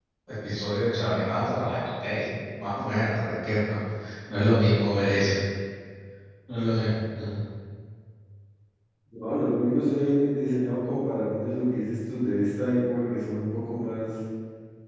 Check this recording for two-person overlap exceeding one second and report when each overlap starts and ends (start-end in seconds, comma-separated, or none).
none